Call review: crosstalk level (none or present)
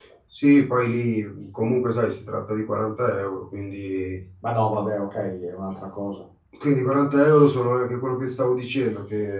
none